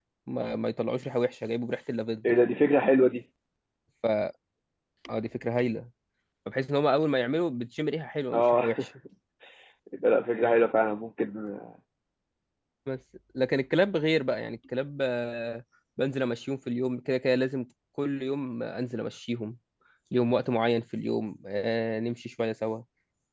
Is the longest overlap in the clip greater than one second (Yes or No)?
No